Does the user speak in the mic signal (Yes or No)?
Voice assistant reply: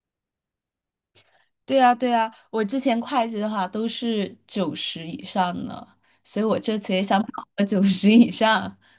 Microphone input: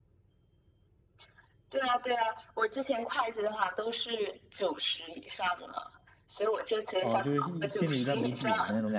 Yes